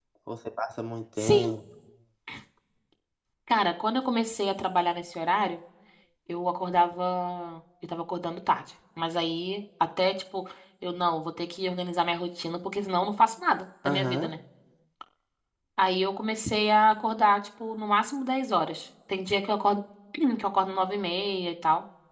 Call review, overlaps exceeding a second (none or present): none